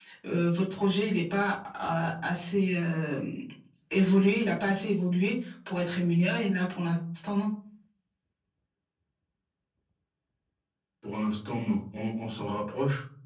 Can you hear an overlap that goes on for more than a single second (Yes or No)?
No